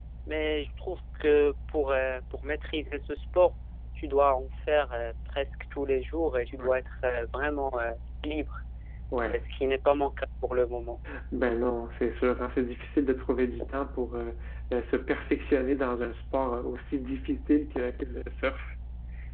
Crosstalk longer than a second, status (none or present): none